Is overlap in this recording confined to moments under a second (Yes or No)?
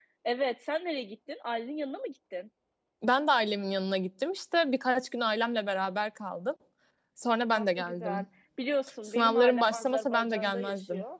No